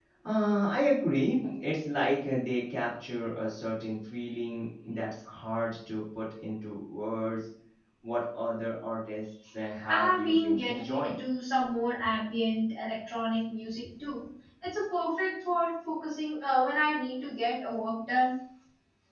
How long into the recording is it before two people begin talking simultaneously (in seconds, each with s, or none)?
9.9 s